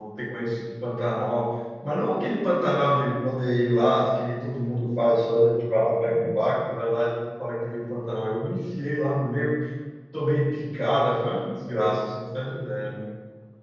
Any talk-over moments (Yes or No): No